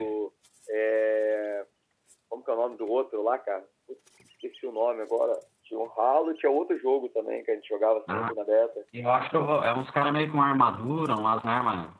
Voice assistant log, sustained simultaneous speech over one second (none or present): none